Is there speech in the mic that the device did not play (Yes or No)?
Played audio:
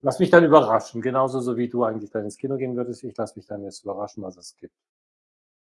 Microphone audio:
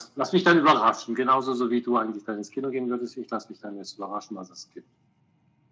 No